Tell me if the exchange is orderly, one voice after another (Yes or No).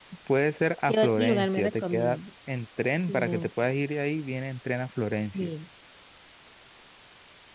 No